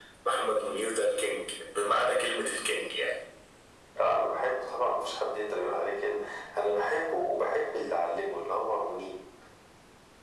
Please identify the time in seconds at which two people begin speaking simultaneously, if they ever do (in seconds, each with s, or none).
none